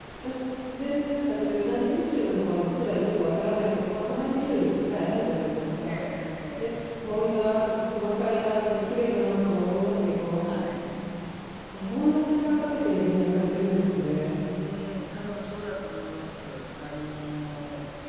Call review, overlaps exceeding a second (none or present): none